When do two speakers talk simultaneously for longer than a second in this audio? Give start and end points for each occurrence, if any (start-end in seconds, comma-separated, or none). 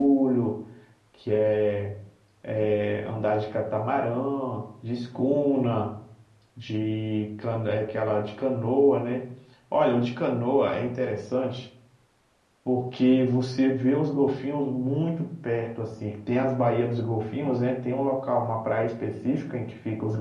none